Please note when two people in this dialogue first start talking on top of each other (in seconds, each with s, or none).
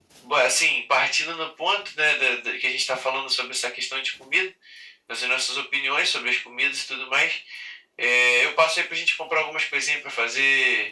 none